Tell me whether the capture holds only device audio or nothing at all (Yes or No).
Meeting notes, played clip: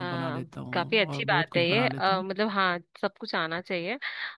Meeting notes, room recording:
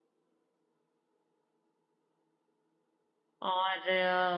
No